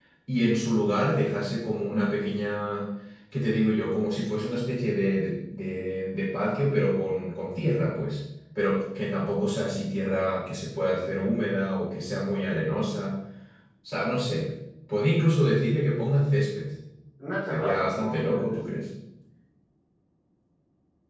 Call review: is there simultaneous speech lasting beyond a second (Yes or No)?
Yes